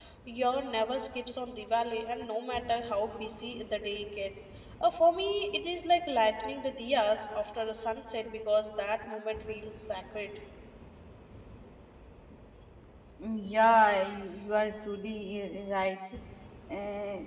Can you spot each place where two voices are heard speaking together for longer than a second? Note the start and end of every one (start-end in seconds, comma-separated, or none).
none